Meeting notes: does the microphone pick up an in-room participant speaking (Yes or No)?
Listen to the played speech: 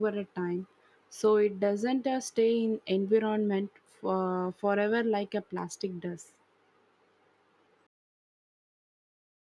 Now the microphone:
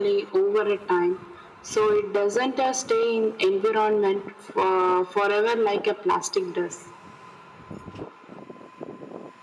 No